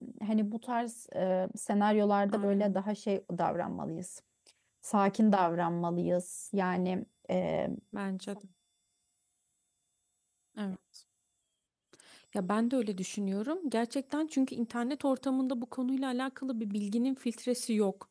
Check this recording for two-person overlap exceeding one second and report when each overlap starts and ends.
none

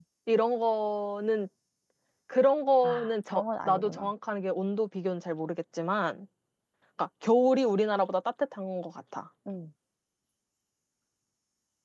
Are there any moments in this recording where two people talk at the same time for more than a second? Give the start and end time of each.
2.8-4.1

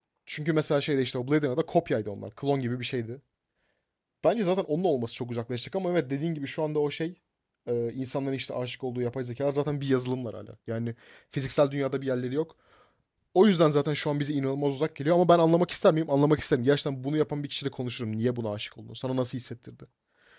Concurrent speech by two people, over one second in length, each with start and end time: none

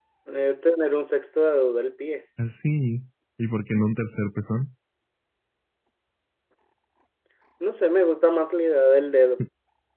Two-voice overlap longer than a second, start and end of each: none

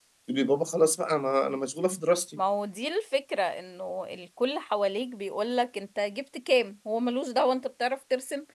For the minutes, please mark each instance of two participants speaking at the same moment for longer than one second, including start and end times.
none

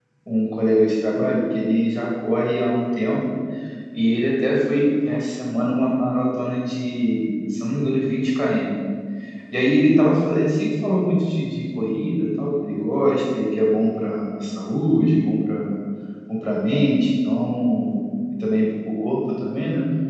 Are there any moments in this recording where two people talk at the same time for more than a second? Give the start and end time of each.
none

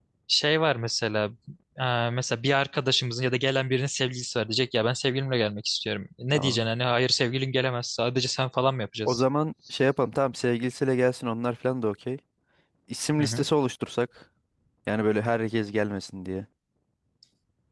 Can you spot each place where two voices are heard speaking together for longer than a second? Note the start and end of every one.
none

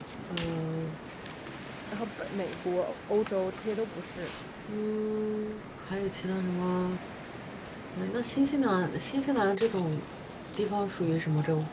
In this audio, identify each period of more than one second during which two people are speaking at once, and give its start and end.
none

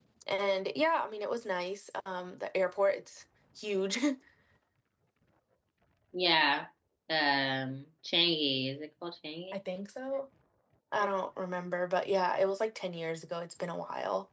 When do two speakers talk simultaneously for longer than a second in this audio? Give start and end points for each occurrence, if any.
none

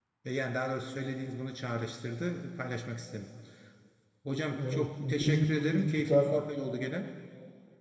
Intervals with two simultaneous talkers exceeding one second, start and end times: 4.6-6.4

